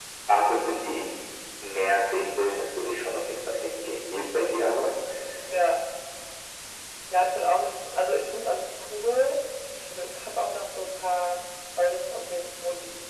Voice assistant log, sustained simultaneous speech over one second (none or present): none